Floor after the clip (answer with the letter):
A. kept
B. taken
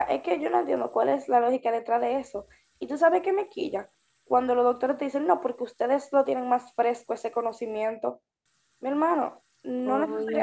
A